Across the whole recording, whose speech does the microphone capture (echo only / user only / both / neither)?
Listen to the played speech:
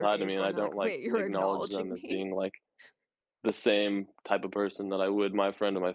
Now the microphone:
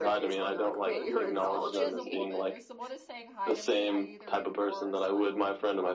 both